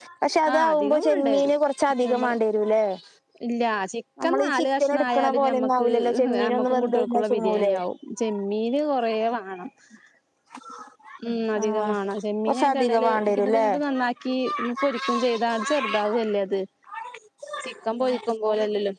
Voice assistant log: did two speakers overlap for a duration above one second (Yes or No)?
Yes